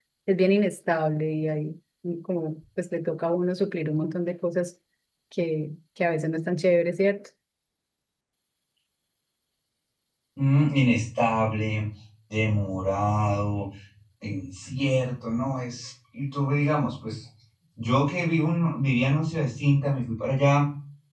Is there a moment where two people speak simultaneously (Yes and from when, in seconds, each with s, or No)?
No